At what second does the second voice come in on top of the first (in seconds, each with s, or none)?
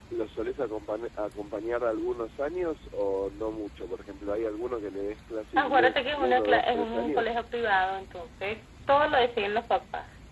5.6 s